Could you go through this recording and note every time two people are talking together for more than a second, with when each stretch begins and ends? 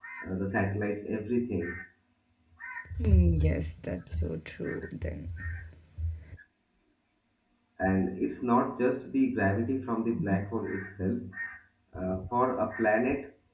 none

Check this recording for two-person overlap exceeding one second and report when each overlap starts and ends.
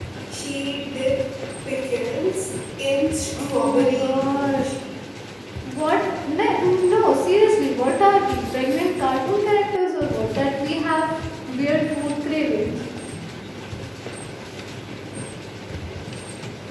3.4-4.7

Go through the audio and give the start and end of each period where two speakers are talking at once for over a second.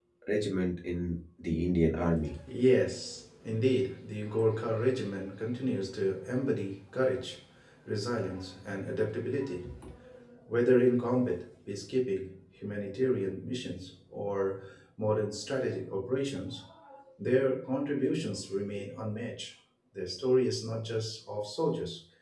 none

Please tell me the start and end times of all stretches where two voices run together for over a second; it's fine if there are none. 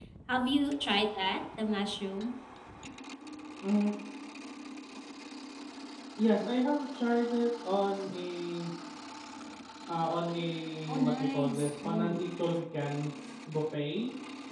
10.9-12.3

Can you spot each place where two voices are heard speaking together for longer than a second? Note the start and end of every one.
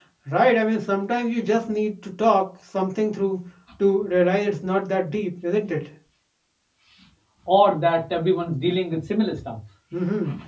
none

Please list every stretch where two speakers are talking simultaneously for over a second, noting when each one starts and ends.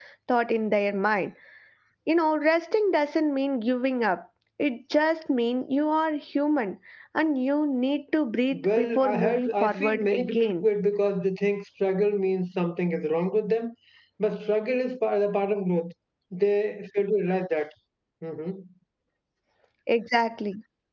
8.5-10.7

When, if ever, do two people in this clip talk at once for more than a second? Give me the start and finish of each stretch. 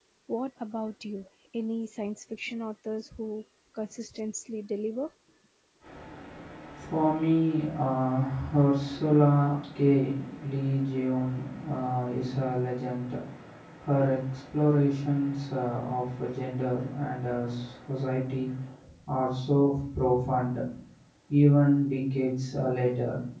none

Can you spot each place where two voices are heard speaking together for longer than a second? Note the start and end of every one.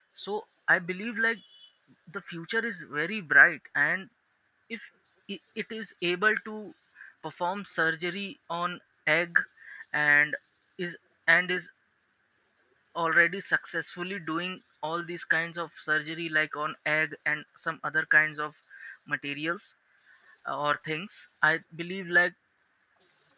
none

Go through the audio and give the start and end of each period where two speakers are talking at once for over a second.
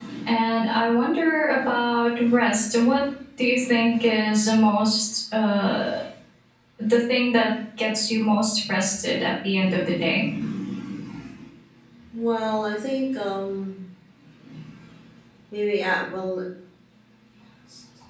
none

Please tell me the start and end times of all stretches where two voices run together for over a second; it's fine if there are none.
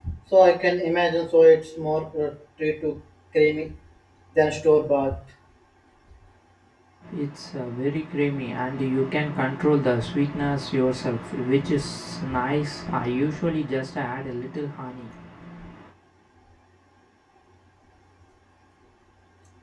none

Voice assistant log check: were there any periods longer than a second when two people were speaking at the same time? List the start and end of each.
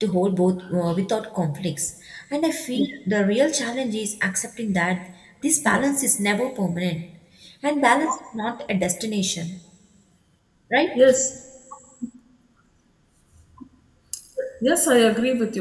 none

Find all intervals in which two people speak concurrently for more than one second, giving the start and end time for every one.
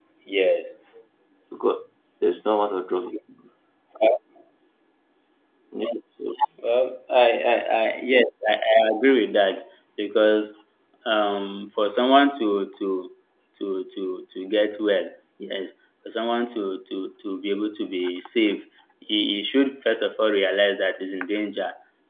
none

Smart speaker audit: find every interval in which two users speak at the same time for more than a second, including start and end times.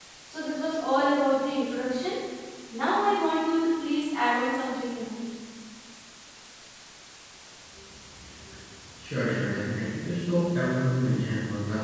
none

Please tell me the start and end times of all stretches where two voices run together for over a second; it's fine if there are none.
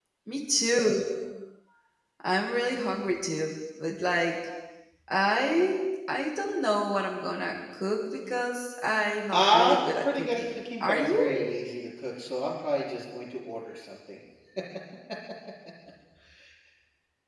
9.3-11.4

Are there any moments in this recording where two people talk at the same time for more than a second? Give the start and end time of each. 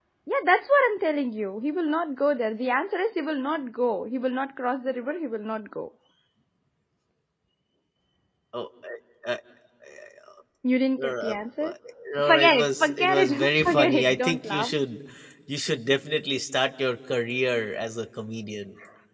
12.2-14.7

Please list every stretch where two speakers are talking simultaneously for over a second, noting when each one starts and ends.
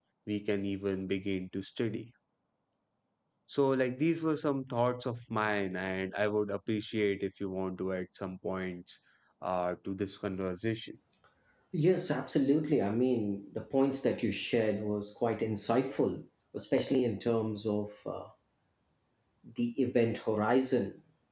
none

